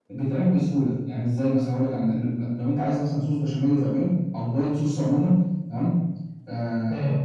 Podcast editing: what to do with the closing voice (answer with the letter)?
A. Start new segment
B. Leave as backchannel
B